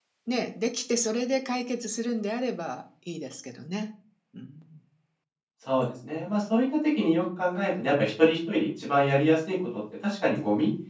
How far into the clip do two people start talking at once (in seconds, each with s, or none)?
none